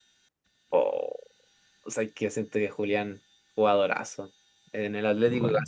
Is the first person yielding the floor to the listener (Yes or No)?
No